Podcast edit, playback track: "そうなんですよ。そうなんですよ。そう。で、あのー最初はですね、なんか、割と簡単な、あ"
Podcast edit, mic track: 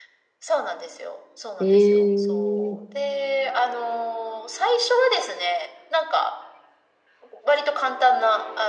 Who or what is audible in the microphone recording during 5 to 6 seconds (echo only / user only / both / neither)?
echo only